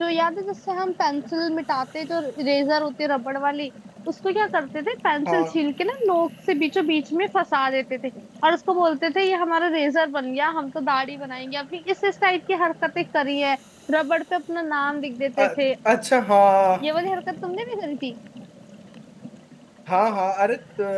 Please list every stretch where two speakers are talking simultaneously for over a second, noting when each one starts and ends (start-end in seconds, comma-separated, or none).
none